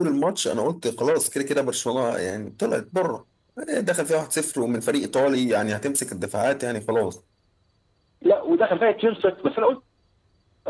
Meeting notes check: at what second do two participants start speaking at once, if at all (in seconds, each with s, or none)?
none